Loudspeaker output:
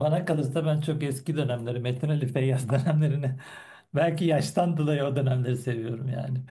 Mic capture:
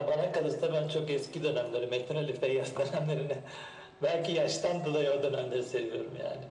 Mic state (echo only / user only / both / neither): echo only